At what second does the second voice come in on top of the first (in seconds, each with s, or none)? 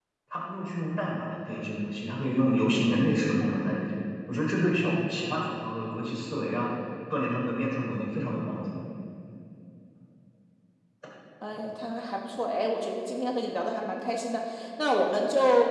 none